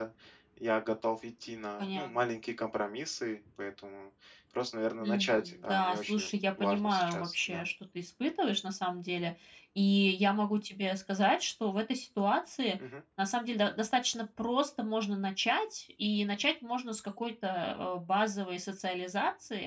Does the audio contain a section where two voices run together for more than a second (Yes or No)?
Yes